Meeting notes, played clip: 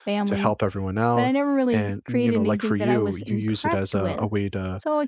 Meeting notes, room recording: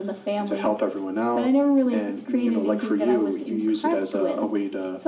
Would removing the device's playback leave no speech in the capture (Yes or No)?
Yes